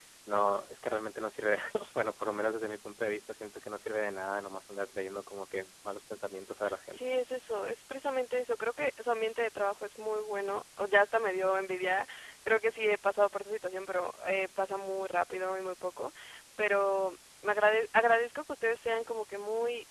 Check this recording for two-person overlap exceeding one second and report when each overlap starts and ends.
none

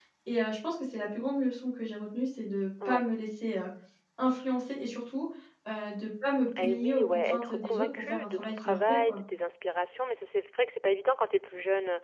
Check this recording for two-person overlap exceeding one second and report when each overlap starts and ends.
6.6-9.2

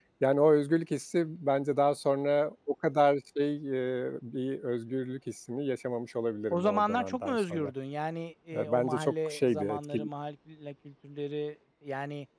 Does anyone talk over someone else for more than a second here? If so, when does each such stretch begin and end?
6.5-7.7, 8.5-10.1

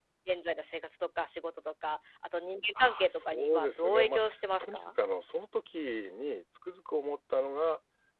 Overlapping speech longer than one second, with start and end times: 2.8-4.2

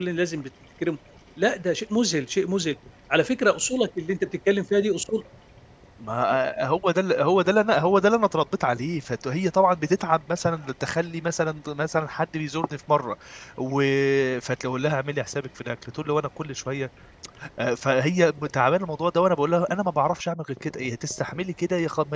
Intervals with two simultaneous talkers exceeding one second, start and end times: none

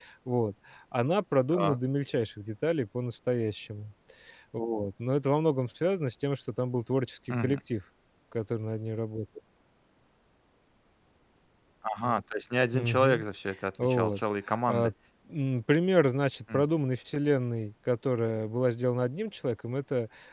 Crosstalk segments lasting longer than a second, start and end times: none

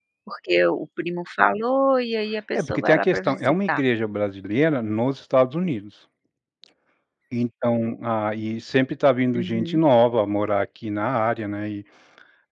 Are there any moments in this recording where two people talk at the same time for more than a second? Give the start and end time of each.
2.5-3.8

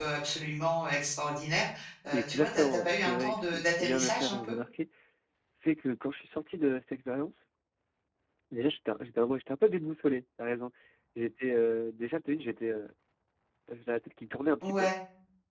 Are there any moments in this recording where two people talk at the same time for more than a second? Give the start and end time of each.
2.1-4.6

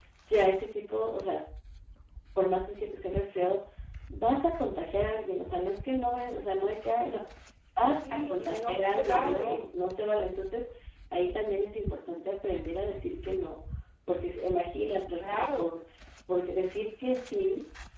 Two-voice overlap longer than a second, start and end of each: 7.9-9.6

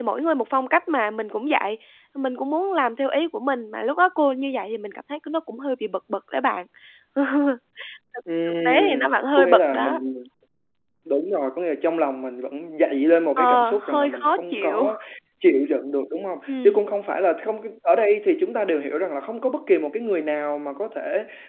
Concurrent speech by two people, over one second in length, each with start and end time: 8.5-10.0, 13.4-14.9

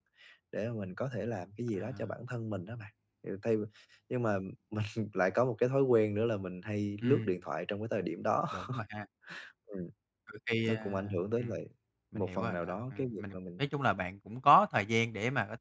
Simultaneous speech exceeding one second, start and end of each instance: 12.1-13.6

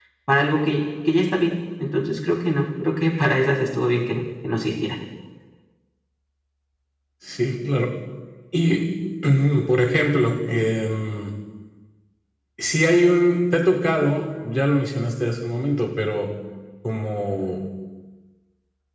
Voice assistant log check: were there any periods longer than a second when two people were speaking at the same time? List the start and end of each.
none

